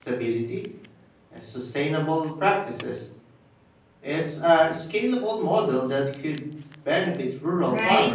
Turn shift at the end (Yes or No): Yes